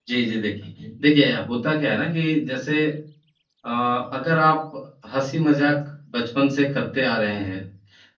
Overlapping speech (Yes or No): No